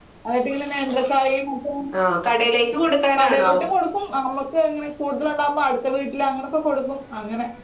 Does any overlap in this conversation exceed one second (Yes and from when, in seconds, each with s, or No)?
No